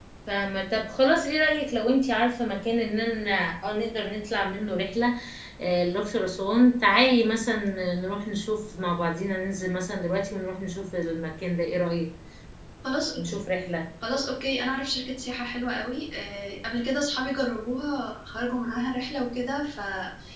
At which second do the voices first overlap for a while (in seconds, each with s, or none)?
none